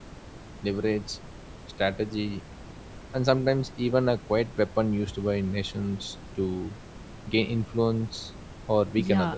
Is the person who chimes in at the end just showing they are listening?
No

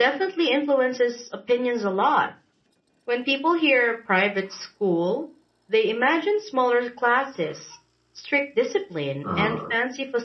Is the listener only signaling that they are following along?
Yes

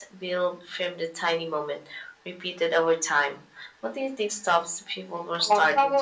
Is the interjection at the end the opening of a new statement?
Yes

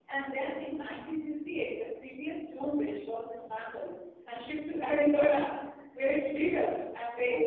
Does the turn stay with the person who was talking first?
No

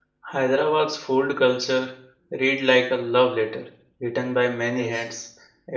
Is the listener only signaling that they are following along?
Yes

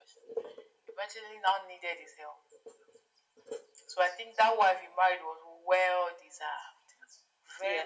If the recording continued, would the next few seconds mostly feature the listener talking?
Yes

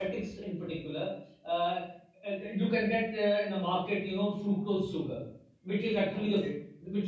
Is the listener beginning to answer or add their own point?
No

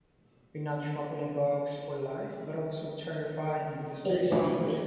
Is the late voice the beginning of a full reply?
Yes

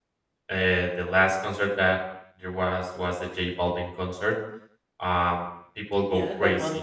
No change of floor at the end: No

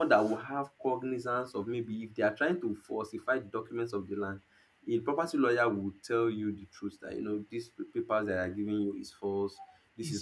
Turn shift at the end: No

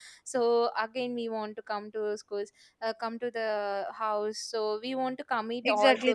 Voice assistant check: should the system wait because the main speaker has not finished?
No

